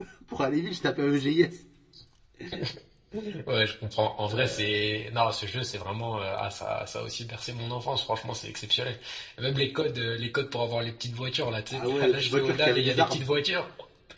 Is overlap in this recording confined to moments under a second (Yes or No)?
No